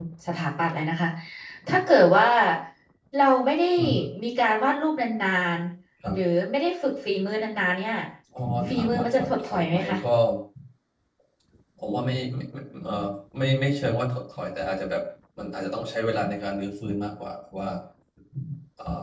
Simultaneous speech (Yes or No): Yes